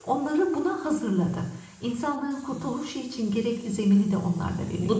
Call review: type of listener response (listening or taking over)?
taking over